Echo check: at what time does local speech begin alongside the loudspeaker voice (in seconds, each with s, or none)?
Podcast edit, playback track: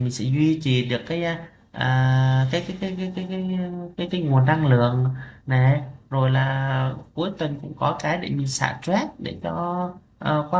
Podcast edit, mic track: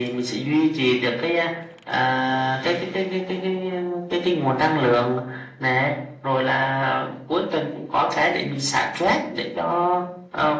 none